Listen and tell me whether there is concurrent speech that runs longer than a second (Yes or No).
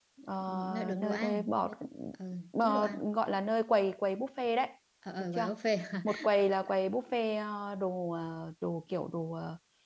Yes